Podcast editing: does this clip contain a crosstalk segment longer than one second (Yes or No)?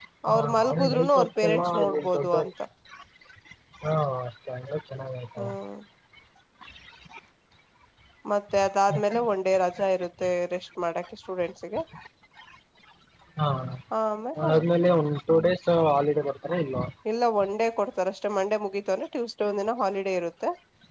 Yes